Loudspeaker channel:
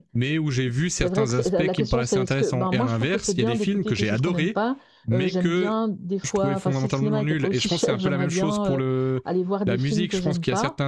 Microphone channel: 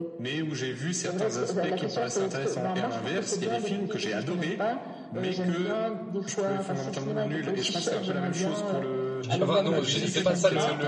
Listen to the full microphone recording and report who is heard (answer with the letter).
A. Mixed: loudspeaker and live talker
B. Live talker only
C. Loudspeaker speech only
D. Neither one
A